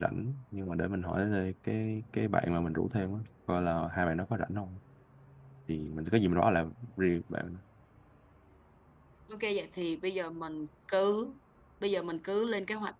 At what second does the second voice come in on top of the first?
none

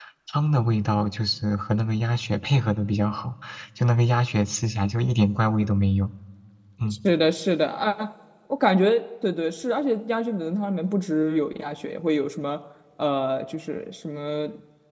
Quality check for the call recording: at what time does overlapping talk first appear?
none

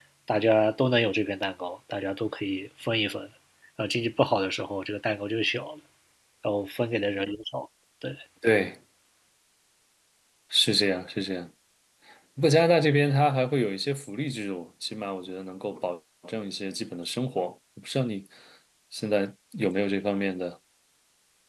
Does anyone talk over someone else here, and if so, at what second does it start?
none

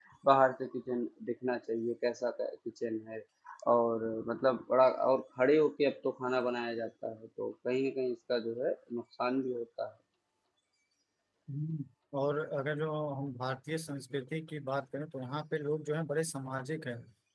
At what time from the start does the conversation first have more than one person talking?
none

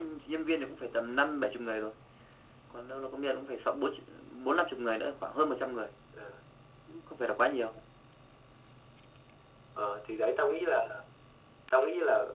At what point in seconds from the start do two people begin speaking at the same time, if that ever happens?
none

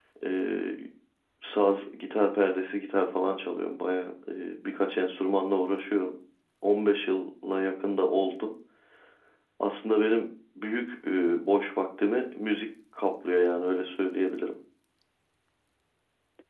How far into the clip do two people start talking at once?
none

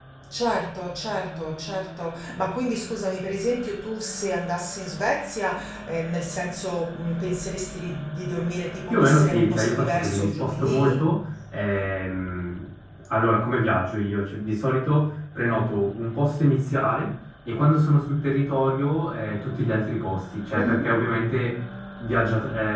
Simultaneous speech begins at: 9 s

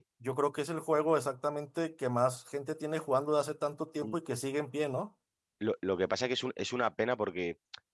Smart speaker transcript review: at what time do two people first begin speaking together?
none

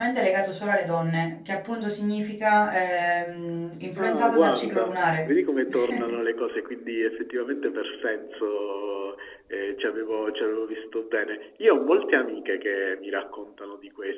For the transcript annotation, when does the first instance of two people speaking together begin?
4 s

